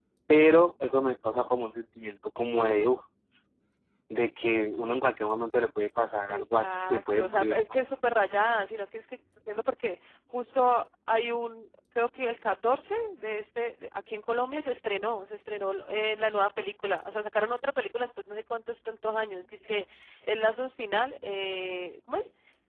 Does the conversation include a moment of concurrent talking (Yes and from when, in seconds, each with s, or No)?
Yes, from 6.3 s